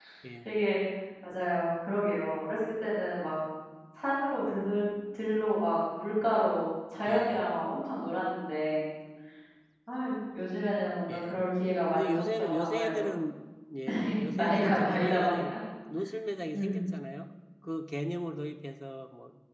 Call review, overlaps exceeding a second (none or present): present